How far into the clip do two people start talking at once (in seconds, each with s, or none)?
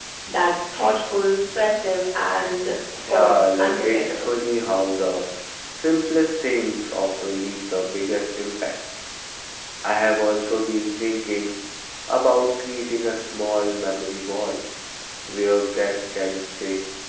3.0 s